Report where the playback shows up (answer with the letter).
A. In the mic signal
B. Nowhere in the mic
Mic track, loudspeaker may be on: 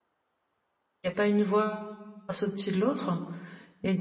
B